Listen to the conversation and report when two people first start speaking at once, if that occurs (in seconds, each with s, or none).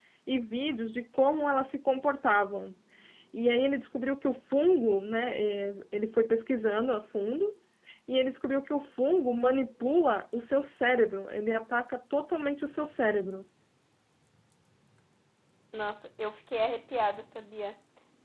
none